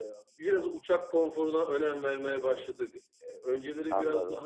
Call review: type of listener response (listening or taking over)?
listening